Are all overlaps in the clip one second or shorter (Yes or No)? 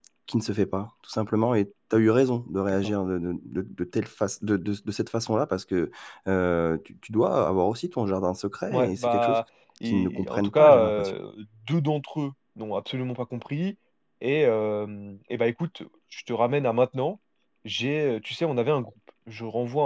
No